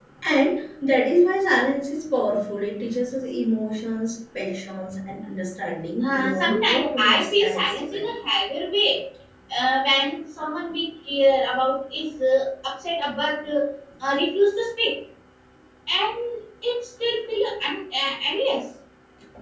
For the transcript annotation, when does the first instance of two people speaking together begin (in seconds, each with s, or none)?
6.0 s